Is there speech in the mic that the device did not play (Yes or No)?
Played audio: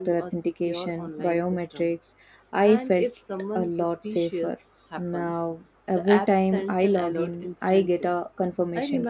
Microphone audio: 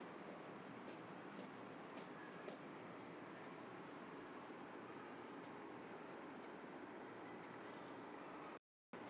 No